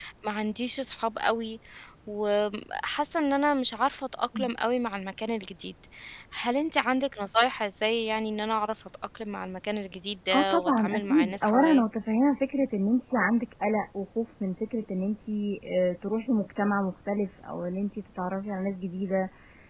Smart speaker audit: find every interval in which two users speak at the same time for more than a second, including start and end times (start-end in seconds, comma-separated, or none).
10.3-11.8